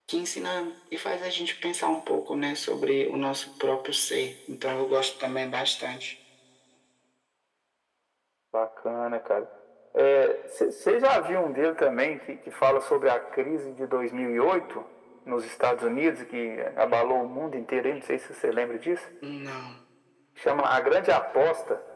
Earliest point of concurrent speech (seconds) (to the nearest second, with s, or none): none